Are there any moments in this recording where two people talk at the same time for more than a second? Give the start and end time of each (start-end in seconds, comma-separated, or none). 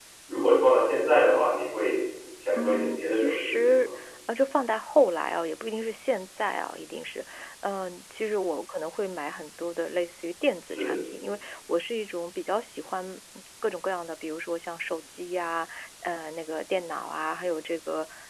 2.6-3.9